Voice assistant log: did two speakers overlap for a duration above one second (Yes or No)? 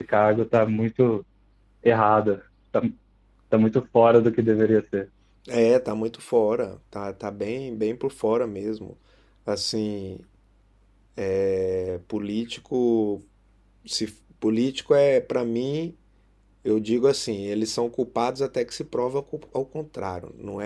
No